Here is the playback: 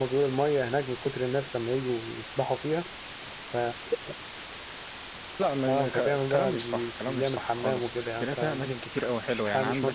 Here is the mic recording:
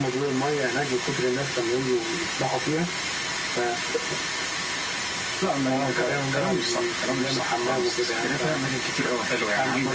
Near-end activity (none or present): none